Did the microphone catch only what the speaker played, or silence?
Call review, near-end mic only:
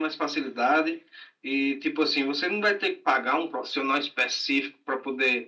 Yes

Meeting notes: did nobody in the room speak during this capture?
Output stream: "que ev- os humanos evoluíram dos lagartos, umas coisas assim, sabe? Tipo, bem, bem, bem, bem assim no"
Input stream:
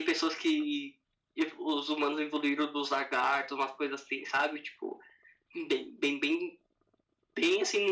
Yes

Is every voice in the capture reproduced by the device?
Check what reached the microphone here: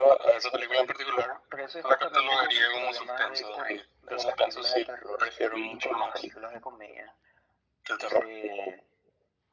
Yes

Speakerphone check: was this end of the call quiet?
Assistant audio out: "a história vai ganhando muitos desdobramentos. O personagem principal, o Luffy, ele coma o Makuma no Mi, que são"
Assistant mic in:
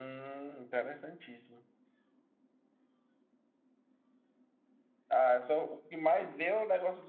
No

